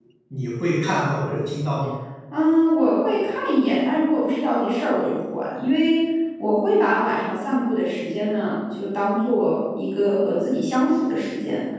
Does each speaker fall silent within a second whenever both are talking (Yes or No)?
Yes